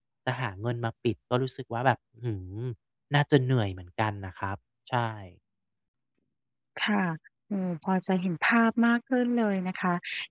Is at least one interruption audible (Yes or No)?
No